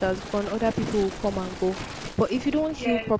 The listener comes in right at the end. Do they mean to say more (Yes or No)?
No